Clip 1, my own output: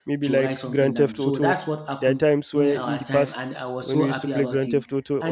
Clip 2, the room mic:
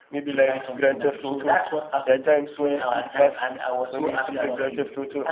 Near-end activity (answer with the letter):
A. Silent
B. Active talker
A